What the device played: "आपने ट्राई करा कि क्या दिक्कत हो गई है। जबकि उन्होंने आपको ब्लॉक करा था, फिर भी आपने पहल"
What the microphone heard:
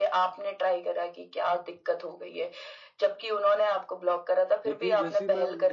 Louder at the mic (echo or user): echo